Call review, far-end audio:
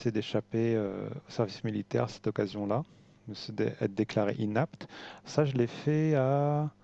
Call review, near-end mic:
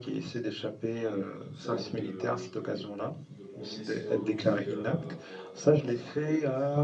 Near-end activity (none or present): present